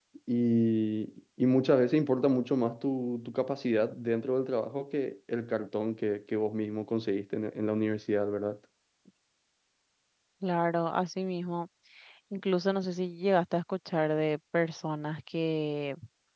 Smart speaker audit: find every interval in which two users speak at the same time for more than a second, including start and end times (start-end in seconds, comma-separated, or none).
none